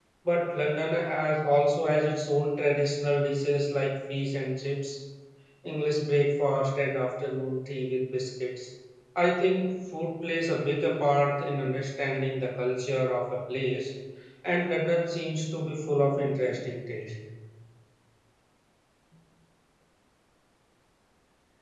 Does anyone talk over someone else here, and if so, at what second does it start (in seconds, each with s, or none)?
none